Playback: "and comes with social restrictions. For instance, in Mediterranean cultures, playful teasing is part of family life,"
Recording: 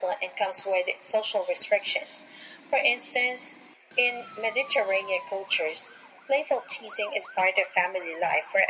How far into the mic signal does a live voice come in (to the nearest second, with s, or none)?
none